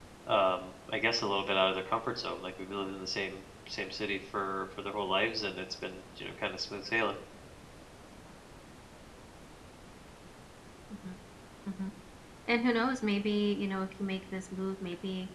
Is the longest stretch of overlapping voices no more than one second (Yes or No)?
Yes